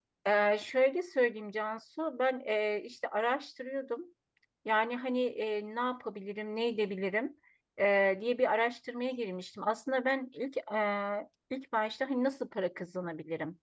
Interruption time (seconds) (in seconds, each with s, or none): none